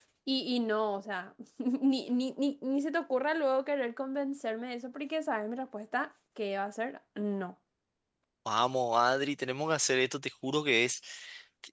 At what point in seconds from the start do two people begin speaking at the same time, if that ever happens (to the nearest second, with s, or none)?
none